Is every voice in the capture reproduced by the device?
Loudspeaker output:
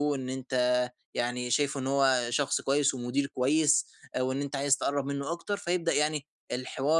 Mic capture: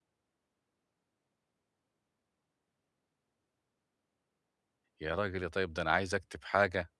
No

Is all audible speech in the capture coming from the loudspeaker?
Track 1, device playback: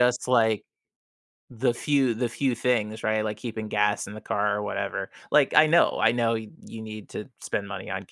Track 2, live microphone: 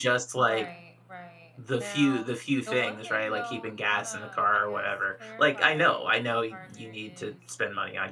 No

